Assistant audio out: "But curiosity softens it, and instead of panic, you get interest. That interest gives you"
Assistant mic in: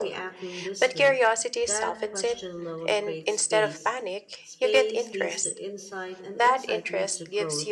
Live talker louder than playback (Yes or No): No